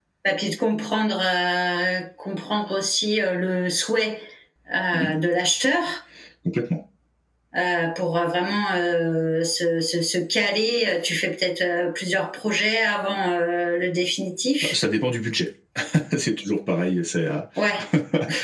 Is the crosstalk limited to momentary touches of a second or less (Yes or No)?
Yes